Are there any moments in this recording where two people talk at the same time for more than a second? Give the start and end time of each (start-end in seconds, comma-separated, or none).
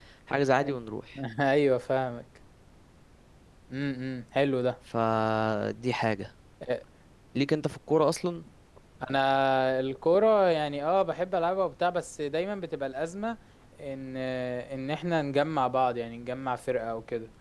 none